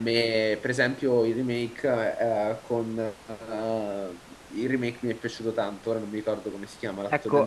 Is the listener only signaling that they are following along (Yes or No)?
No